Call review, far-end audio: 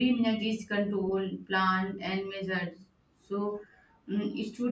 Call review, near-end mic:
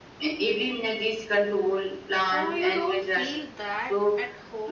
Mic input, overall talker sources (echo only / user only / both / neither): both